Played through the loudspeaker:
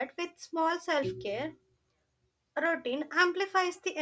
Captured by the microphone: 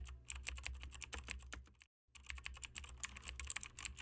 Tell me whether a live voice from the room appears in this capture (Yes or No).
No